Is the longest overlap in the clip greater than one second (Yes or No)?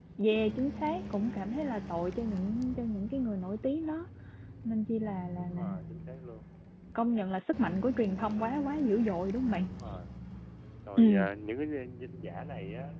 No